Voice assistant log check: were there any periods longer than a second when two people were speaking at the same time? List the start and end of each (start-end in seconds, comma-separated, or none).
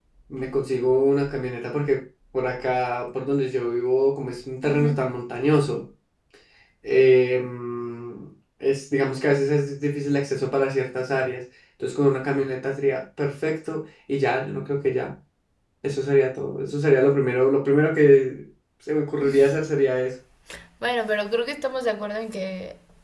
none